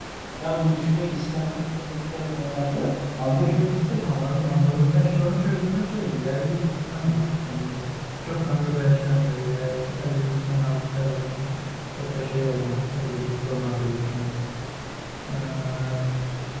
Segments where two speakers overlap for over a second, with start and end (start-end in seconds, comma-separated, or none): none